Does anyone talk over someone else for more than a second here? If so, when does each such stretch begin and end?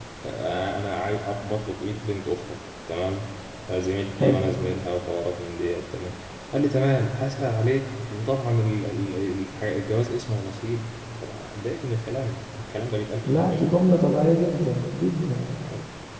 none

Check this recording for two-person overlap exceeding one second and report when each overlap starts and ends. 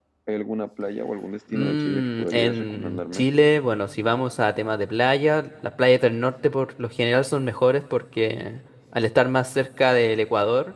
1.5-3.2

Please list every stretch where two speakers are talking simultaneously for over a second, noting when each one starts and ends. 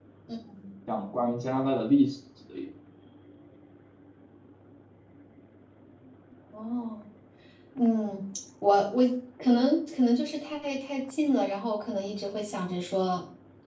none

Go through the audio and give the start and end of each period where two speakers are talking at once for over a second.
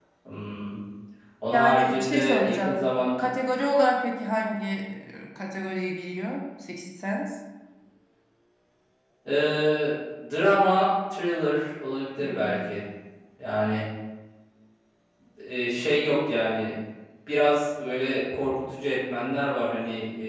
1.5-2.8

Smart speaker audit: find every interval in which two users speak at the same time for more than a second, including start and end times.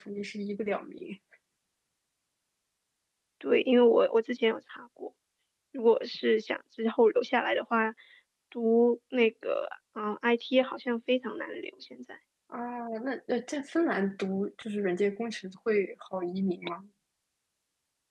none

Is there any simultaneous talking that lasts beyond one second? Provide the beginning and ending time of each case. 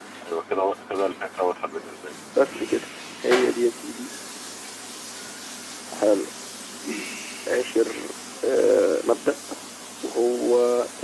none

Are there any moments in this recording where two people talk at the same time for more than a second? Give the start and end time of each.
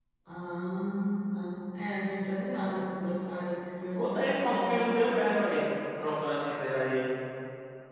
4.0-5.2

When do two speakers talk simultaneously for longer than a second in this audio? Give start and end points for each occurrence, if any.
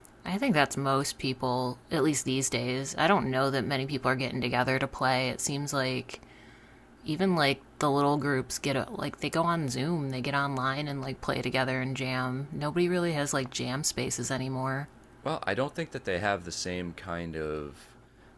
none

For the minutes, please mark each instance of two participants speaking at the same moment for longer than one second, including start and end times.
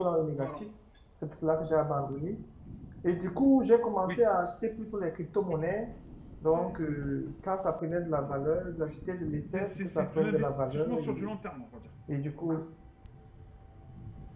9.5-11.1

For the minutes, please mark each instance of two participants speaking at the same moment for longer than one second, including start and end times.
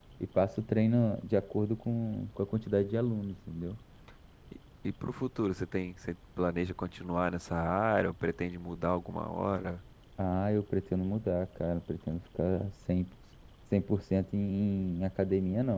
none

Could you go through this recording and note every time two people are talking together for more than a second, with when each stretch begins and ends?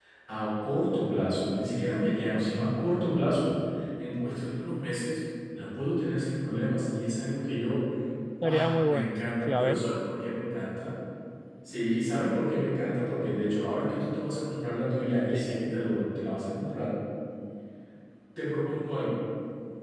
8.4-9.8

